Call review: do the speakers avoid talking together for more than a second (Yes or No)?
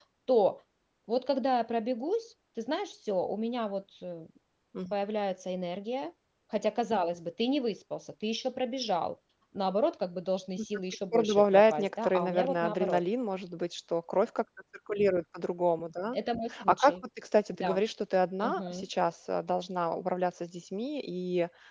No